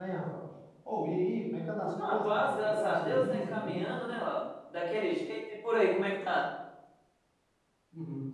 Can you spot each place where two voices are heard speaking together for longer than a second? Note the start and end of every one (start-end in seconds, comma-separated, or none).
1.8-4.0